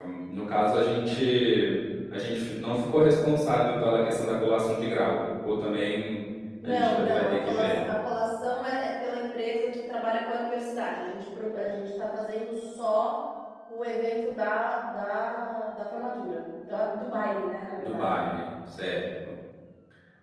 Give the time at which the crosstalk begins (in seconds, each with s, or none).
6.6 s